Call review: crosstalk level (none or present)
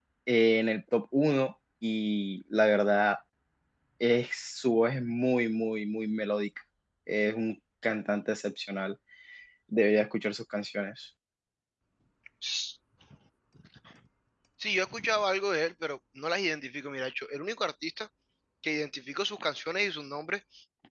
none